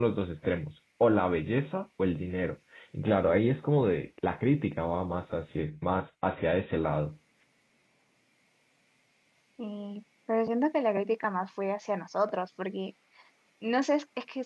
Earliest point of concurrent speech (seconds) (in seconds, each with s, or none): none